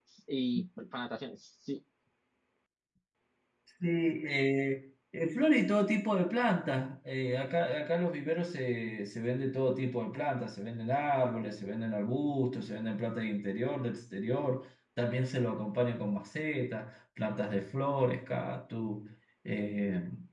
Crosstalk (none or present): none